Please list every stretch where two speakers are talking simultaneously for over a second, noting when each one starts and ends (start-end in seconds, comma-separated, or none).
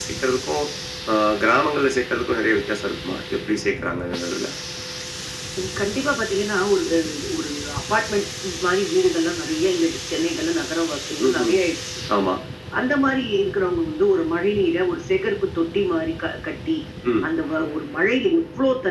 none